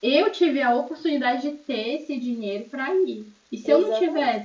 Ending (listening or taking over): taking over